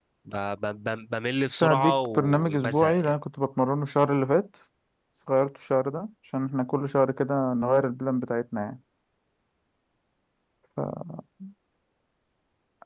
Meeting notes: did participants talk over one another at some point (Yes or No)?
Yes